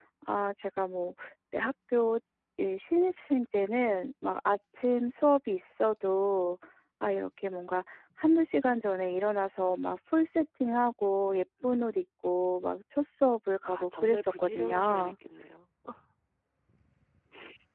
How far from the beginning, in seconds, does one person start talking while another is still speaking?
13.6 s

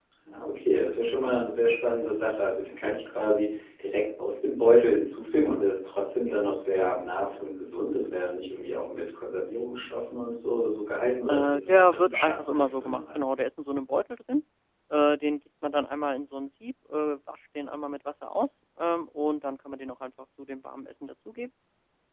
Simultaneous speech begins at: 11.3 s

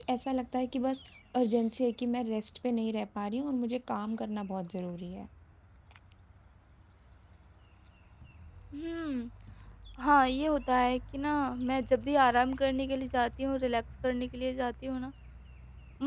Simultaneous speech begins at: none

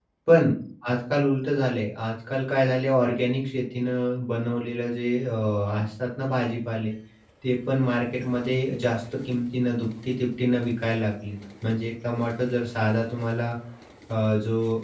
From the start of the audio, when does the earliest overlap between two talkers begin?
none

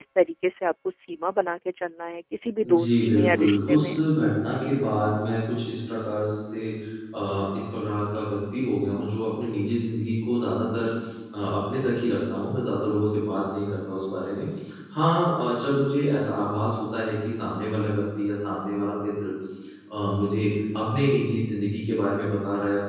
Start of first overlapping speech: 2.6 s

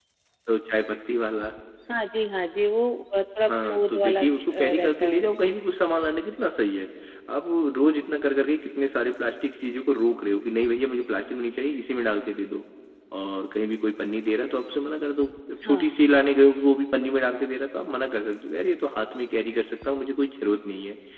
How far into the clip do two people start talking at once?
3.5 s

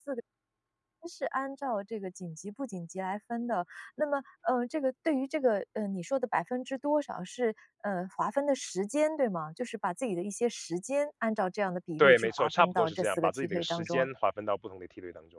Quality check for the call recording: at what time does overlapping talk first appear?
12.0 s

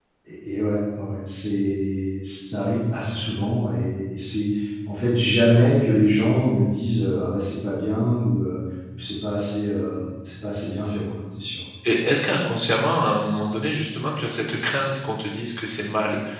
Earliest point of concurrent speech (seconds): none

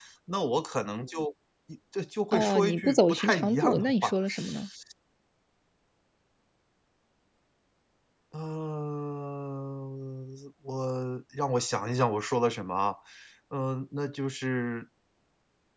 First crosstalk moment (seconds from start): 2.3 s

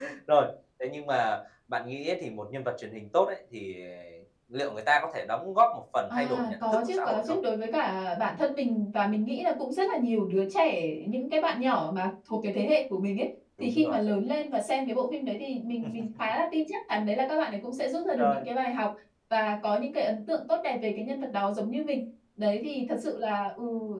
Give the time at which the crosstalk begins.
6.1 s

